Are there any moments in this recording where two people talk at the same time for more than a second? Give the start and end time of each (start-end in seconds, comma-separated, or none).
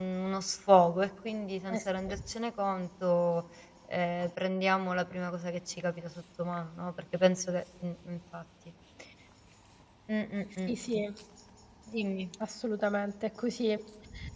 none